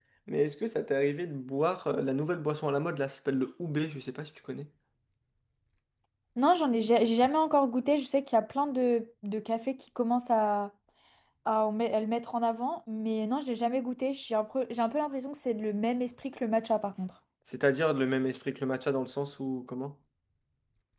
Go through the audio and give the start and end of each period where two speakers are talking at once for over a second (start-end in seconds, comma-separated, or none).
none